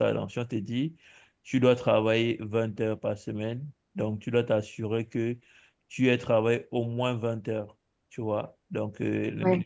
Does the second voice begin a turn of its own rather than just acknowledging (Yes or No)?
No